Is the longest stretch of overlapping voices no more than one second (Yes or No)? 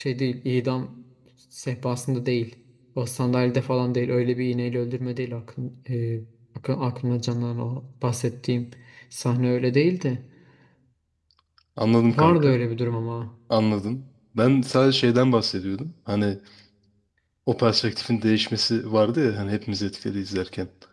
Yes